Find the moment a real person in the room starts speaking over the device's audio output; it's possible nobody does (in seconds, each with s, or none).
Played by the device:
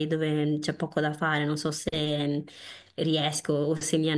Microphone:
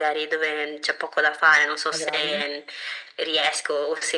1.9 s